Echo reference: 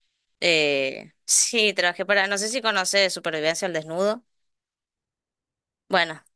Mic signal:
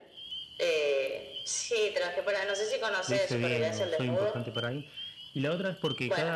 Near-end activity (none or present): present